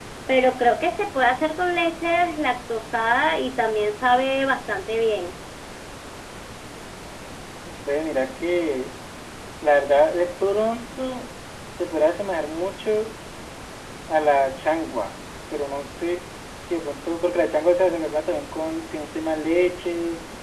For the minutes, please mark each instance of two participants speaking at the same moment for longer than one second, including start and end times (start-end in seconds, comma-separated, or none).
none